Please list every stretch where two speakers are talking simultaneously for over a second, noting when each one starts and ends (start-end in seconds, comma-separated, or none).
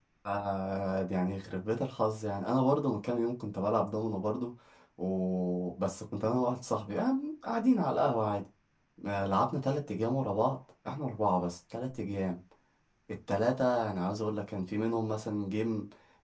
none